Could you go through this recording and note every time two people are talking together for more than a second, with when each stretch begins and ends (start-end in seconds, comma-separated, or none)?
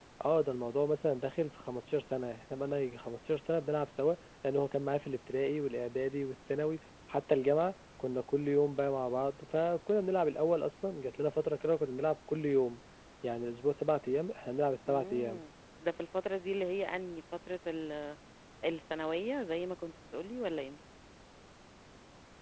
none